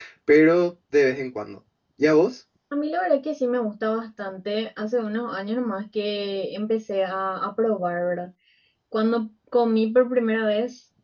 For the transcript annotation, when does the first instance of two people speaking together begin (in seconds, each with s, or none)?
none